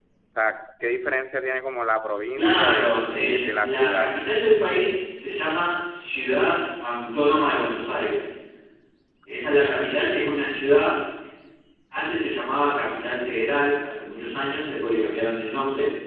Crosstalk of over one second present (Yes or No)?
Yes